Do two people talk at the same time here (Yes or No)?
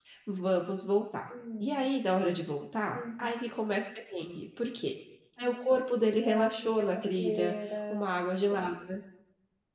Yes